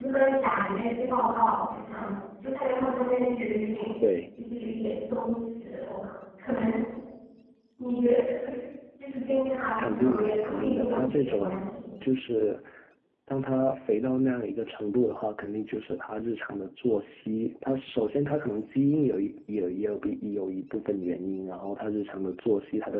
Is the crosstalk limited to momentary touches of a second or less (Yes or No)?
No